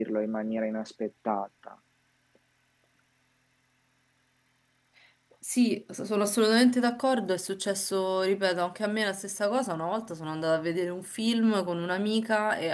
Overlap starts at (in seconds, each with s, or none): none